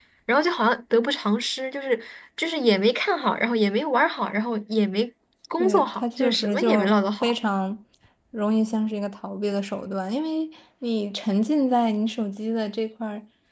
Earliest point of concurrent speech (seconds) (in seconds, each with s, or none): 5.6 s